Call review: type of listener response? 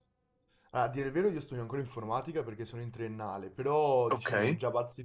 listening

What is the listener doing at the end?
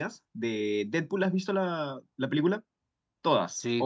taking over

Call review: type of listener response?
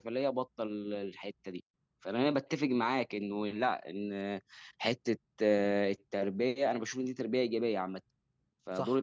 listening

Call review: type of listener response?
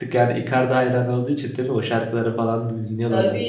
taking over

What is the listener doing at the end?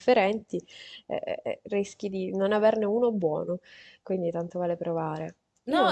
taking over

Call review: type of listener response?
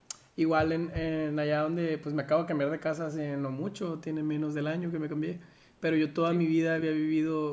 listening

